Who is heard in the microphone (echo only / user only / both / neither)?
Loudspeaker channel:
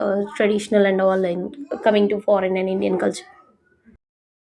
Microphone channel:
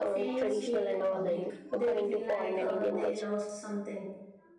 both